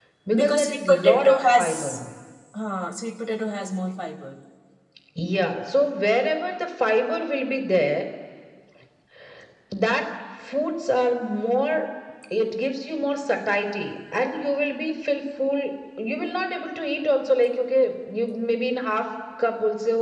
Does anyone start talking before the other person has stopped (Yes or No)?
Yes